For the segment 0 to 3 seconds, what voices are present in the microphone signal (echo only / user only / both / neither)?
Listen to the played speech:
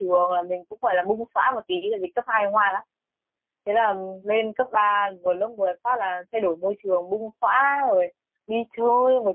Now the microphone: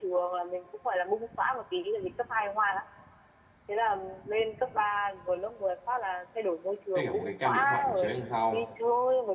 echo only